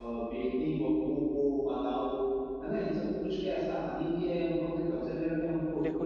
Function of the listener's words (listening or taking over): taking over